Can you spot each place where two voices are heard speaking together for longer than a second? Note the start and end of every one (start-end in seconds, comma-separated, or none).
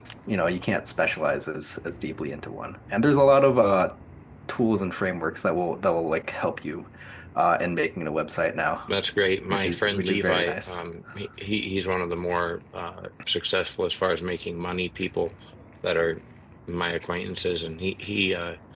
9.5-10.8